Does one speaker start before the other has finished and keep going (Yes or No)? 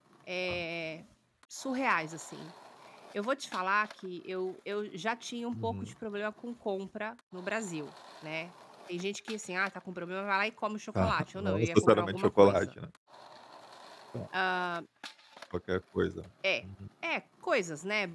Yes